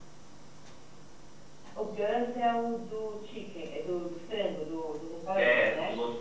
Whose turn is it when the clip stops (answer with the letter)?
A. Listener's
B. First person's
A